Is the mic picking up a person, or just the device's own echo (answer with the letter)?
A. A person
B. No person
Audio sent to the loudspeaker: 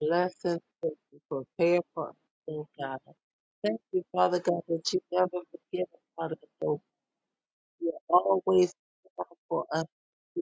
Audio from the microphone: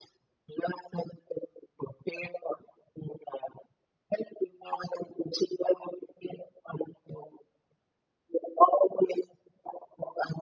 B